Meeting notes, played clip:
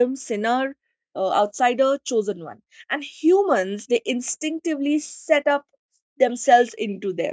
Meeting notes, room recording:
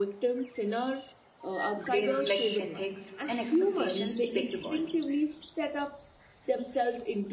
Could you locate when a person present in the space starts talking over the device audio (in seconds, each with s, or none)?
1.8 s